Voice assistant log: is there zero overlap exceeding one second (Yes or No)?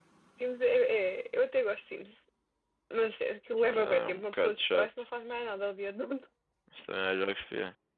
No